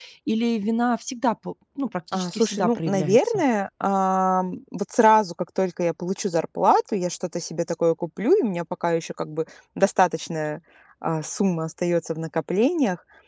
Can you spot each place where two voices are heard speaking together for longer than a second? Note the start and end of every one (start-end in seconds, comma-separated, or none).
2.1-3.4